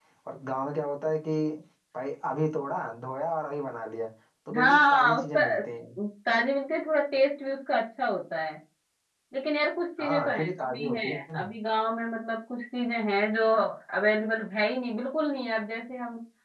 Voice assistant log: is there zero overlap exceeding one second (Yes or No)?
No